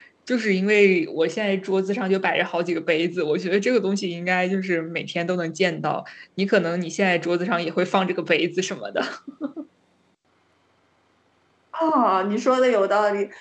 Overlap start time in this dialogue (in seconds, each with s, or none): none